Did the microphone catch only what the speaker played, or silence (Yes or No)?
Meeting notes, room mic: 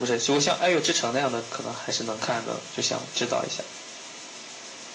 Yes